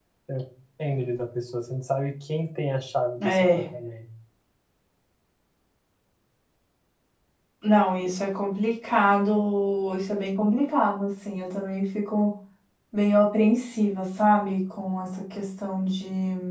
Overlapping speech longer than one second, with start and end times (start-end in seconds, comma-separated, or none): none